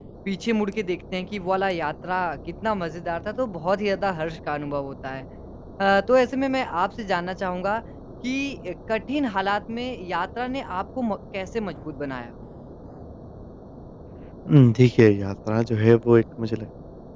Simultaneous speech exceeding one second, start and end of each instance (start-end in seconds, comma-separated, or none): none